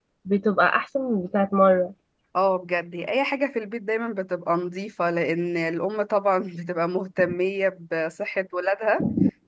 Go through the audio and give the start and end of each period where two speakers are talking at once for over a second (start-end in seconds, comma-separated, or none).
none